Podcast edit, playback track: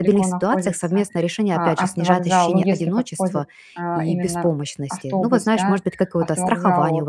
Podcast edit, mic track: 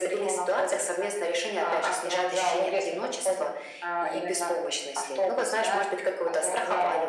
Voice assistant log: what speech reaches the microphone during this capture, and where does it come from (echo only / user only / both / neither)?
echo only